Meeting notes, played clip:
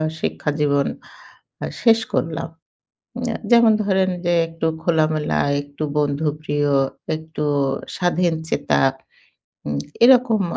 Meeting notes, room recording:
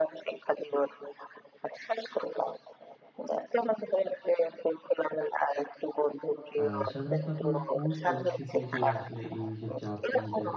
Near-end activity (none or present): present